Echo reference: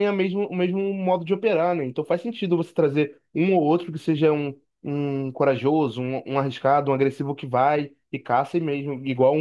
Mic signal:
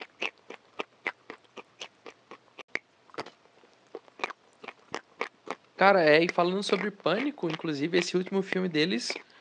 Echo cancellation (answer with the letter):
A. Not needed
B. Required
A